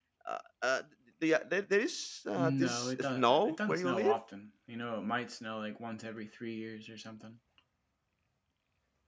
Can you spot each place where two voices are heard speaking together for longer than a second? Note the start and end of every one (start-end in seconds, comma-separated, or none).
2.4-4.2